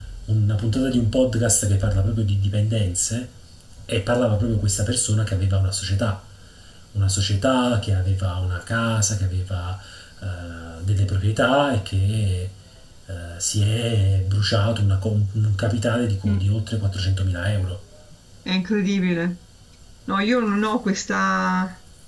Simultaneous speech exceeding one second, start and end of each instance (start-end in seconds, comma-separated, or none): none